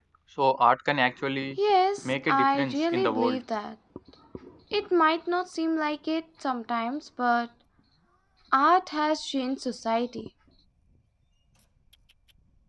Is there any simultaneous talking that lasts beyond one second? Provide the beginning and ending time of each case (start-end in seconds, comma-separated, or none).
2.0-3.4